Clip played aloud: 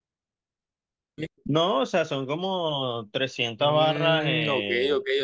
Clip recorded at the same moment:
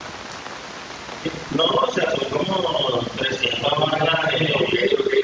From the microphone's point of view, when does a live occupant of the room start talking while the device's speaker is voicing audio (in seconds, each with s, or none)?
none